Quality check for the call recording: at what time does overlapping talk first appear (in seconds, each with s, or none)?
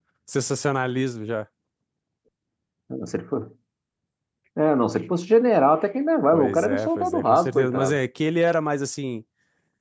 6.3 s